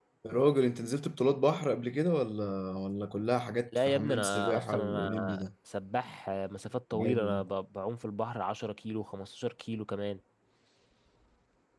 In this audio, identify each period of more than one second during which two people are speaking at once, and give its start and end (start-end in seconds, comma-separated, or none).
3.9-5.5